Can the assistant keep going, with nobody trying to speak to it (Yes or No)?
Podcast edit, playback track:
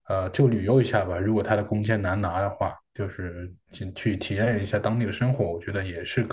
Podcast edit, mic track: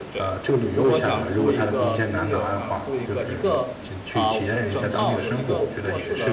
No